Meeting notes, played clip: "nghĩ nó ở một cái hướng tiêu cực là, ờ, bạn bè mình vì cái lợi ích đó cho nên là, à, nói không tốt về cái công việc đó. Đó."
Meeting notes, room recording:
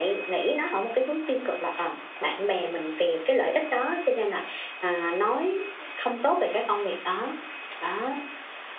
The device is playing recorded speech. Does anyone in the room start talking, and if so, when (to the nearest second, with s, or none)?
none